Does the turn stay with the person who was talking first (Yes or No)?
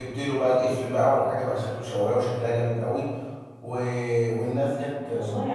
Yes